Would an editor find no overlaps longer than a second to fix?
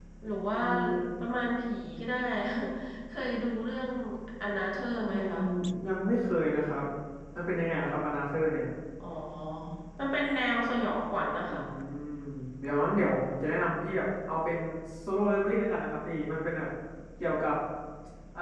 Yes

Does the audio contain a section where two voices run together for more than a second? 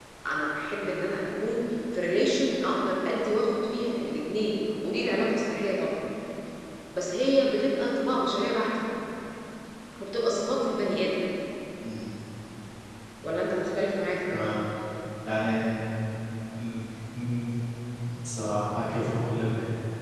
No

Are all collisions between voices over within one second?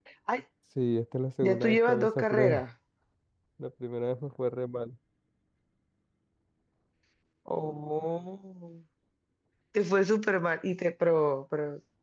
No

